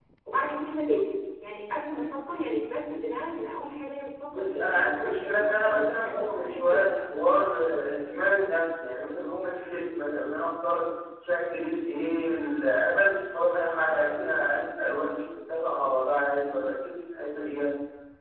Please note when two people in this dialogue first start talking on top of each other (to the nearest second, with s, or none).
4 s